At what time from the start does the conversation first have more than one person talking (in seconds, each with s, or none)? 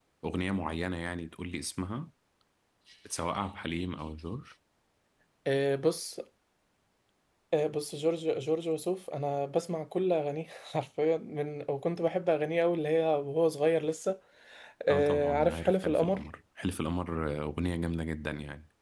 14.9 s